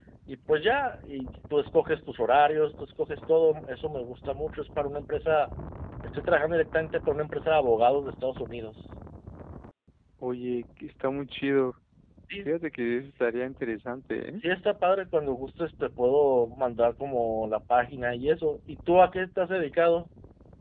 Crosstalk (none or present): none